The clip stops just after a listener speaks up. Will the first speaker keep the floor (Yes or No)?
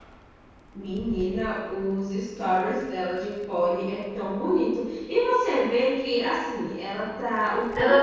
No